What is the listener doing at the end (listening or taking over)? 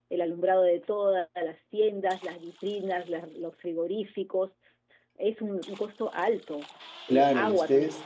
taking over